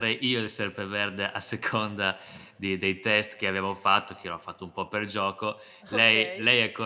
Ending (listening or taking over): listening